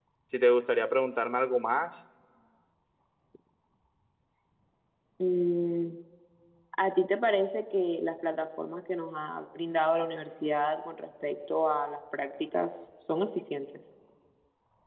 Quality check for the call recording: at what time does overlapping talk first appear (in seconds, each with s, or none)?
none